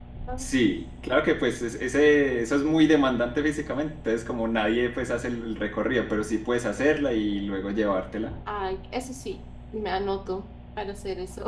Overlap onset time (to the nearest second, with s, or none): none